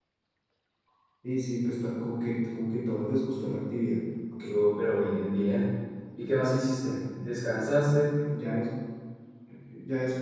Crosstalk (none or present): none